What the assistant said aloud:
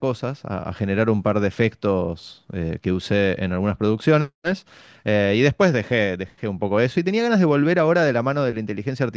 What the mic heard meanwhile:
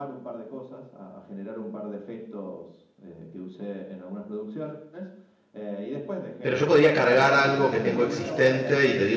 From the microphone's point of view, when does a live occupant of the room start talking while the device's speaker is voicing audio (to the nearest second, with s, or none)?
6 s